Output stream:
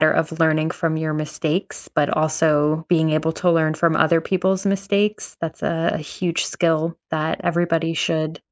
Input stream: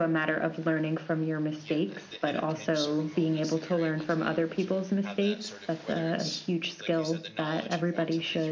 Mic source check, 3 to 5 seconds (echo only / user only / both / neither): both